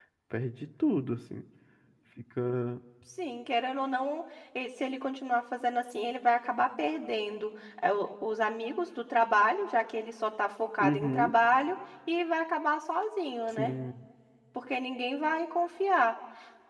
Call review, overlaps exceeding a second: none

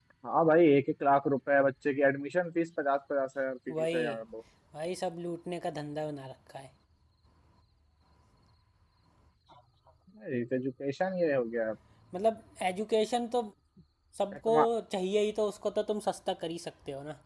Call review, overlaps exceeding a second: none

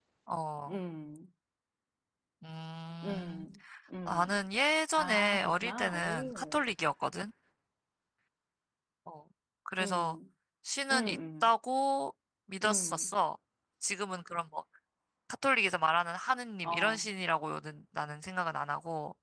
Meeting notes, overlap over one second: present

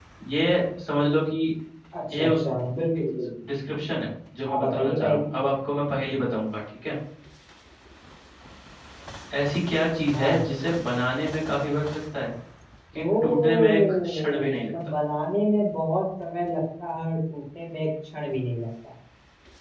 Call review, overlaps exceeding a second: present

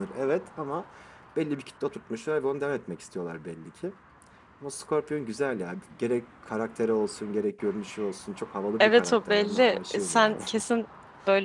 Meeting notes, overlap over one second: present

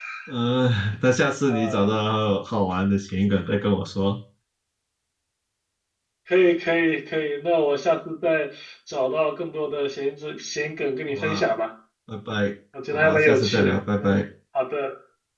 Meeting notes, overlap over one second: present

